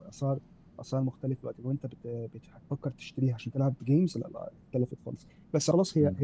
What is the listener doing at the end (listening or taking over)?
listening